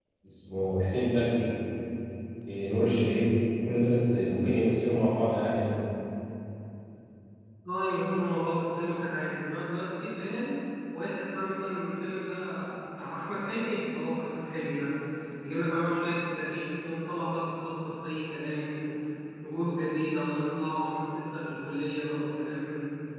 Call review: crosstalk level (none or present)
none